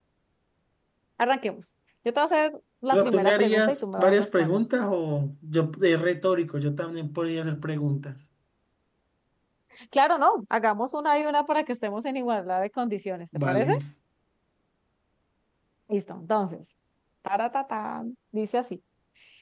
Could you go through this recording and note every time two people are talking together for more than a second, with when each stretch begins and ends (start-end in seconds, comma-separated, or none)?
2.9-4.6